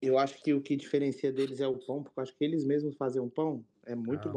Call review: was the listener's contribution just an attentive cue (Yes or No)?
No